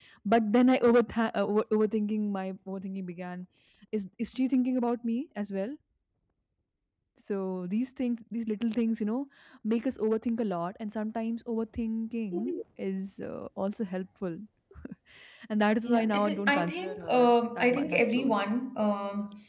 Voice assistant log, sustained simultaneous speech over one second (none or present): present